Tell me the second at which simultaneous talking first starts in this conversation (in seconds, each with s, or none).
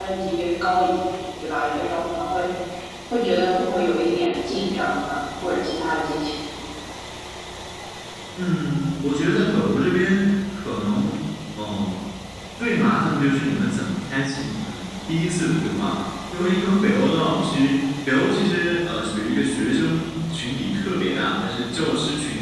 none